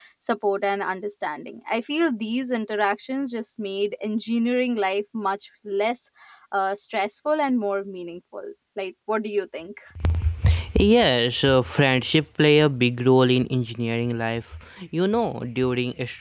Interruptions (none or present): none